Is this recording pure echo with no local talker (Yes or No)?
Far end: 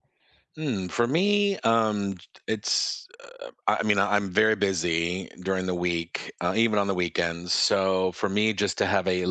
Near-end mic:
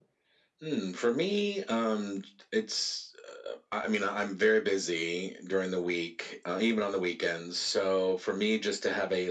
Yes